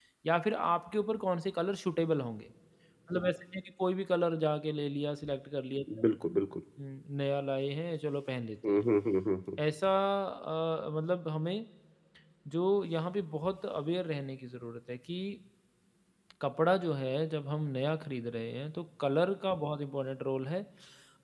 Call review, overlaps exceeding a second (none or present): none